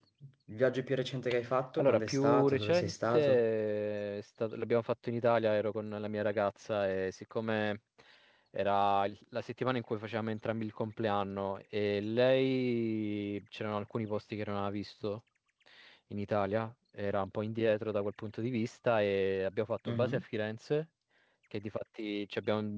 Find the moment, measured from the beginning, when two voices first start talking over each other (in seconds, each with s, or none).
1.8 s